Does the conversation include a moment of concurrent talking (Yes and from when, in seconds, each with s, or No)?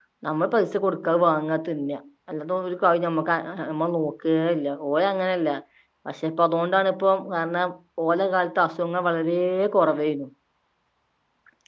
No